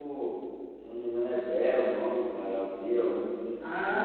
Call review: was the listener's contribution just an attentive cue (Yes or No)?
No